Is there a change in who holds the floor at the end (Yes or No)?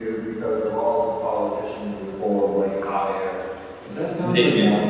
No